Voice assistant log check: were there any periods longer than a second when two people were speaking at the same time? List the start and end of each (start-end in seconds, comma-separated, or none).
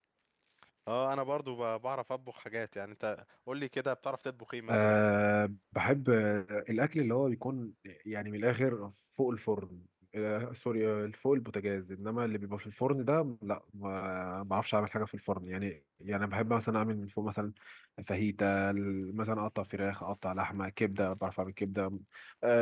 none